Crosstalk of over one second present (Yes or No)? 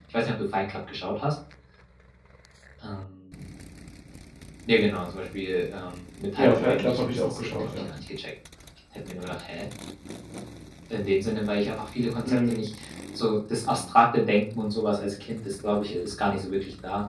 Yes